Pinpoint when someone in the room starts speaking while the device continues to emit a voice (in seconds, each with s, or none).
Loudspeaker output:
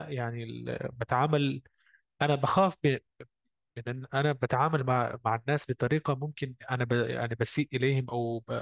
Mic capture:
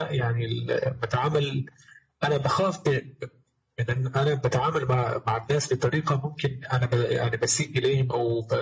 none